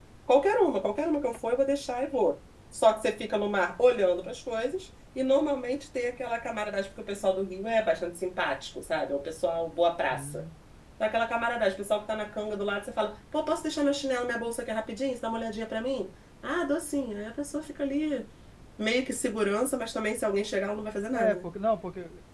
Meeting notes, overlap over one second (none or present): none